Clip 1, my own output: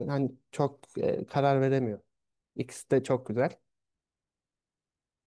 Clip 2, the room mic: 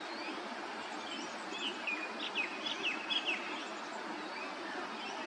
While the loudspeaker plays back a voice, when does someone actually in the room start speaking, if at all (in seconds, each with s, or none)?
none